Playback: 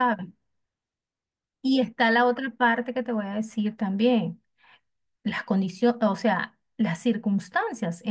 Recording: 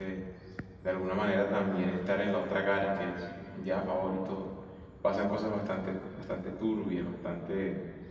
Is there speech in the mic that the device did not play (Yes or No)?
Yes